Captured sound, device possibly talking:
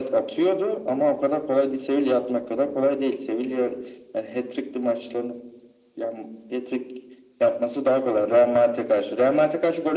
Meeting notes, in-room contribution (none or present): none